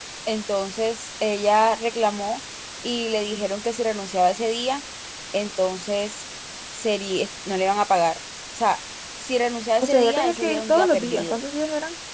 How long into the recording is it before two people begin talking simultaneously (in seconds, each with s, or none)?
9.8 s